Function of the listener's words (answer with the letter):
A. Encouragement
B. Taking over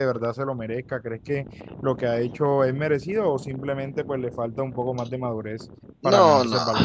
B